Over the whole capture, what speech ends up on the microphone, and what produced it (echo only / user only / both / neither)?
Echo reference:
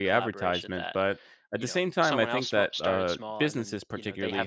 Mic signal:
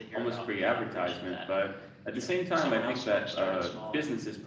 echo only